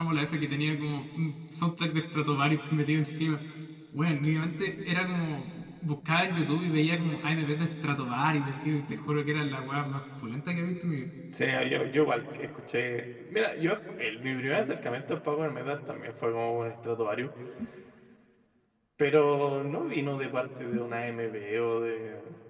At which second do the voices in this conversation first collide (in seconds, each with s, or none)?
none